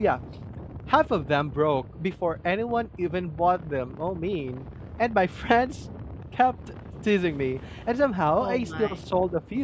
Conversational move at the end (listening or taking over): listening